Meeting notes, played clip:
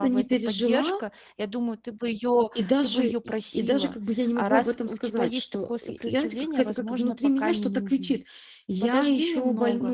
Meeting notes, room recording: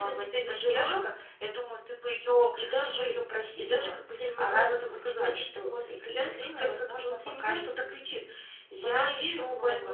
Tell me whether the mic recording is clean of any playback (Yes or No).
No